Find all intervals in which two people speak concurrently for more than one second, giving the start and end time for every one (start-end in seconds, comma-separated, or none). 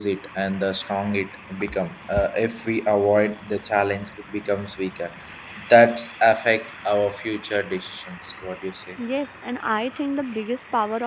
none